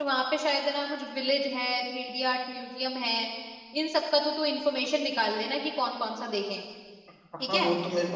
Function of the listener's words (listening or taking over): taking over